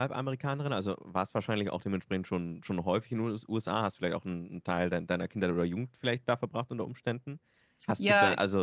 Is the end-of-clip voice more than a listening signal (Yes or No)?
No